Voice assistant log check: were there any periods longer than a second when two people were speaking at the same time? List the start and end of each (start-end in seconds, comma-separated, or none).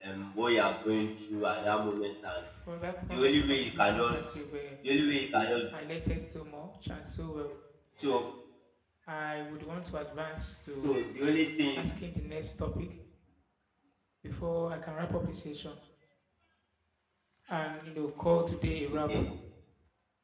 3.1-4.4